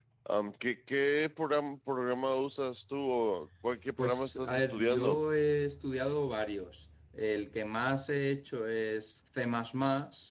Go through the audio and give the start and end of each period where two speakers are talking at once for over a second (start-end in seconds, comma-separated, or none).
4.0-5.2